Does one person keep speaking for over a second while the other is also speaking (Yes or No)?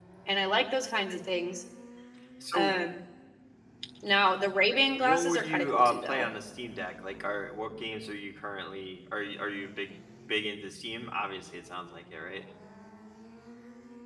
Yes